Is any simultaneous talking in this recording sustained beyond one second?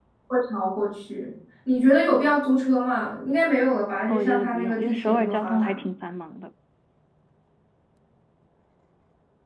Yes, from 4.1 s

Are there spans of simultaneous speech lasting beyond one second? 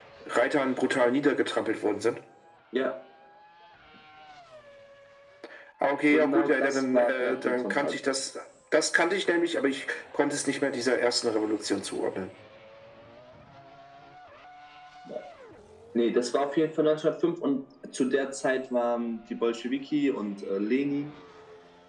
Yes, from 6.1 s

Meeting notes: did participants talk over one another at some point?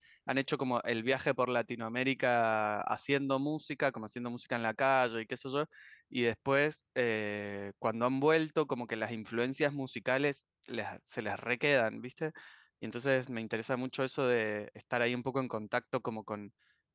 No

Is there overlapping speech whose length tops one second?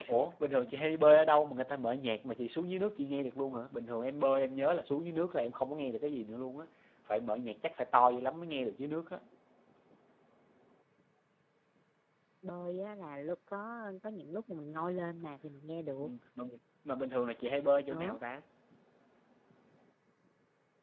No

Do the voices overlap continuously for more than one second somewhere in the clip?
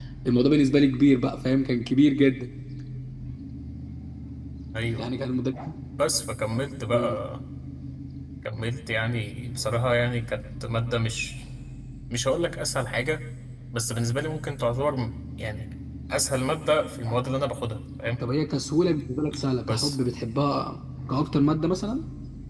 No

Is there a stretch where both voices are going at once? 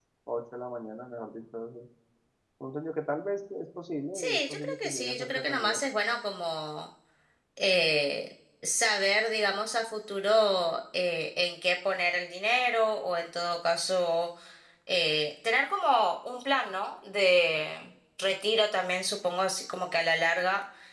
Yes, from 4.2 s

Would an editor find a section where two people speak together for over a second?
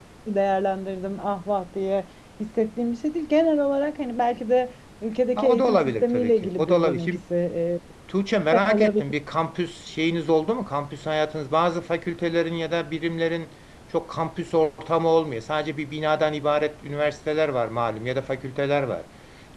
Yes, from 5.4 s

